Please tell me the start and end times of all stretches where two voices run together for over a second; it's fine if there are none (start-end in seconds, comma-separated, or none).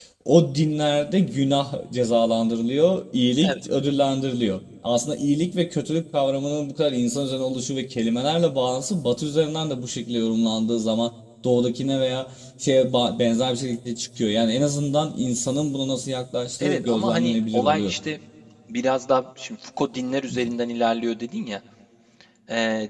16.6-17.9